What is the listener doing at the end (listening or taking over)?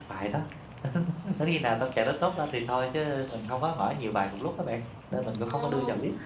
taking over